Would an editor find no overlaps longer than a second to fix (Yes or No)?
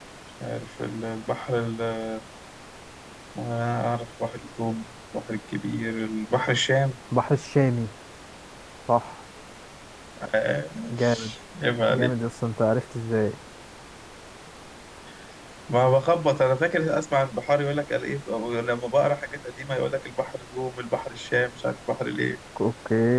Yes